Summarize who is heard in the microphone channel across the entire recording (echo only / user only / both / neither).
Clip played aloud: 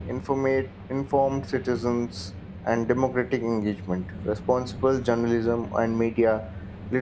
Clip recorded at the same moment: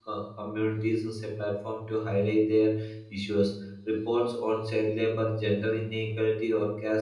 user only